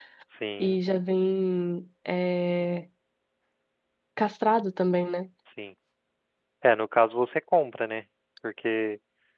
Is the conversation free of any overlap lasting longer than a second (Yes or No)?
Yes